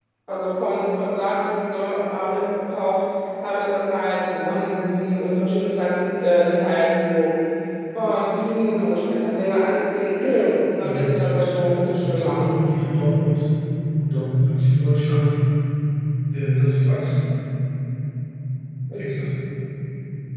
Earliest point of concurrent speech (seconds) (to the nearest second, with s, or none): 11 s